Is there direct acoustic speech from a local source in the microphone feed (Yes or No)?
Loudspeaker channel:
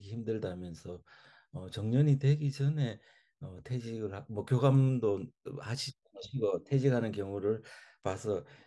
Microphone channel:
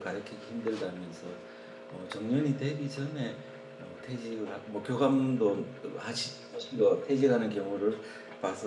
No